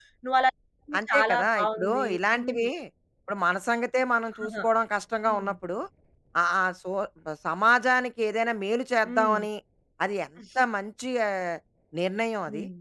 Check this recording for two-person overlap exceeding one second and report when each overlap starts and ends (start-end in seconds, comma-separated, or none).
1.1-2.6